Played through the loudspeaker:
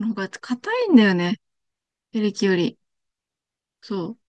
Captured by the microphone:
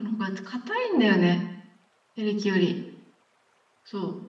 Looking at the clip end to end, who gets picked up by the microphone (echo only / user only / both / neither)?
echo only